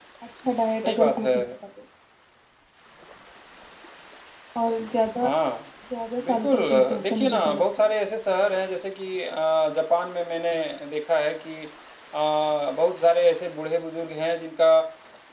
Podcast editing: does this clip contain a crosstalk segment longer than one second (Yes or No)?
Yes